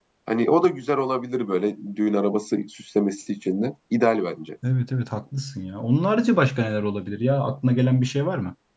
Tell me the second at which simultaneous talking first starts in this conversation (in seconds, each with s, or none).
none